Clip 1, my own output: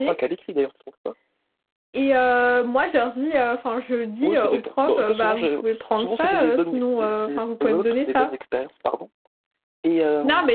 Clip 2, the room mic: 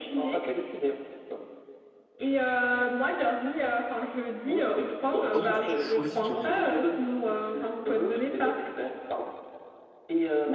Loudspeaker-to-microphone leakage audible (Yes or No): Yes